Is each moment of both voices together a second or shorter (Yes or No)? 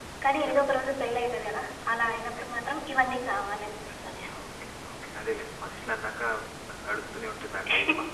Yes